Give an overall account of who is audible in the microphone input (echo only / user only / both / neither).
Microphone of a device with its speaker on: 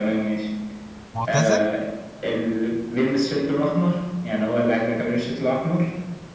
both